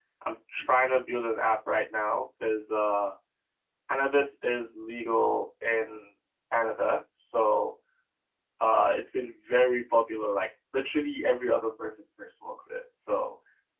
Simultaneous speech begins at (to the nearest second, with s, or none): none